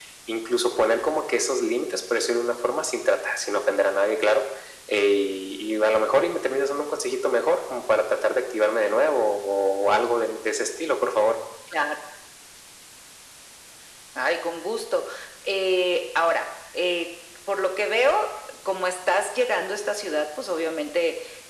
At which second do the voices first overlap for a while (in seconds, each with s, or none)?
none